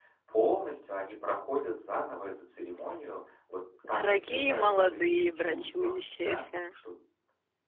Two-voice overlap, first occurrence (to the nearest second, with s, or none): 4 s